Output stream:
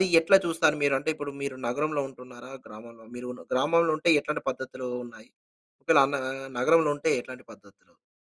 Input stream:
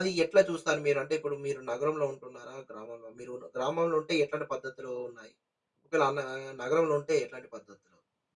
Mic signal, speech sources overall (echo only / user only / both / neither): echo only